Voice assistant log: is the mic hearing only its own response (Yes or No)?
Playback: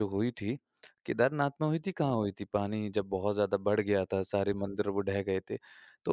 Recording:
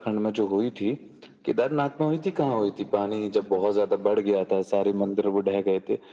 Yes